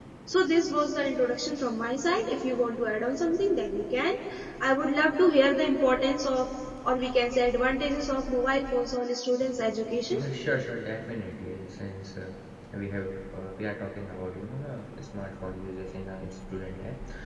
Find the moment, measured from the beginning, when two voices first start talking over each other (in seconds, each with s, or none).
none